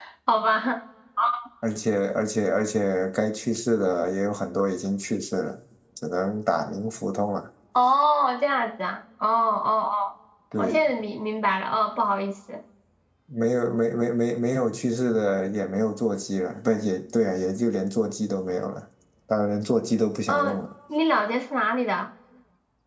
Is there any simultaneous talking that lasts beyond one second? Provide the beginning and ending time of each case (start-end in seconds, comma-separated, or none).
none